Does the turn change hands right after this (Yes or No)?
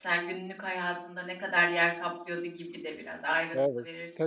Yes